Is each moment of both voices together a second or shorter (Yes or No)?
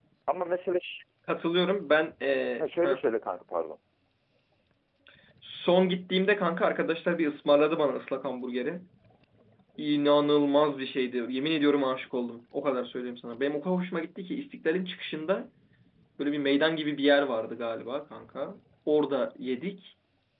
Yes